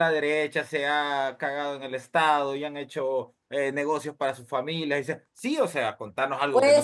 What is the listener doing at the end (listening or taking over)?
taking over